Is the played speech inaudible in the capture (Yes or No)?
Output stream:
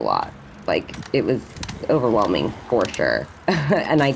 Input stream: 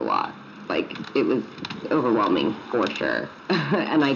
No